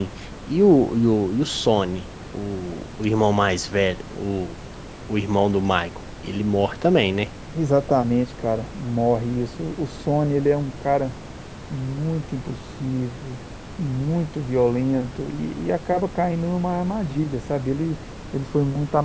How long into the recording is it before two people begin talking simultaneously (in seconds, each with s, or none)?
none